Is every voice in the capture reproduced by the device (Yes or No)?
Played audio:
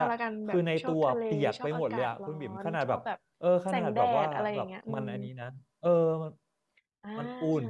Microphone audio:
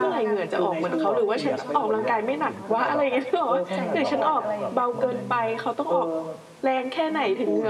No